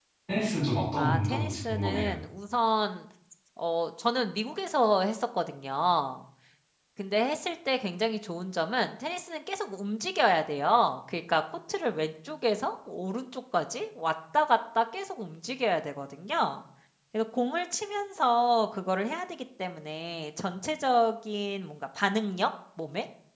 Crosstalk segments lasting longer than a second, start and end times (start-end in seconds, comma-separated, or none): 1.0-2.2